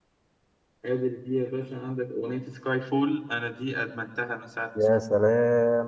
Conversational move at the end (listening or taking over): taking over